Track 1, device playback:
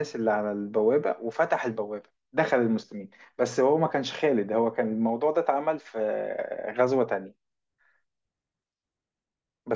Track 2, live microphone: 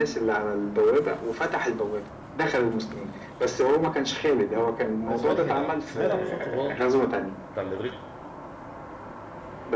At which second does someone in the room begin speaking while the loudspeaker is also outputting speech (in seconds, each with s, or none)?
5.1 s